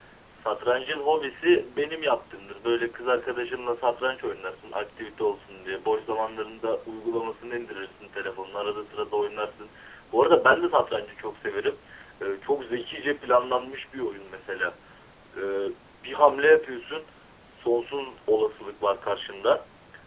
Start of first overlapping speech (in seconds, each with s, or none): none